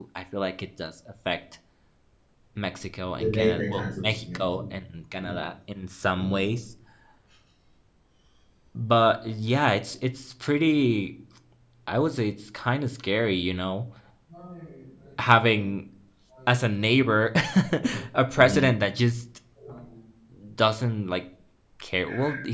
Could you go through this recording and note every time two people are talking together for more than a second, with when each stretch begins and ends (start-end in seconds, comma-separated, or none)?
3.2-4.7